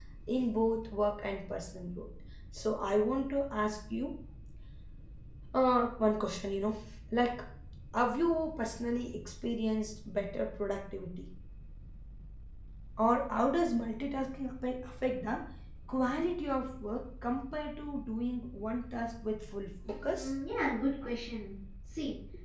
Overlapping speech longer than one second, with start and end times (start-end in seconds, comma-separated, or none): none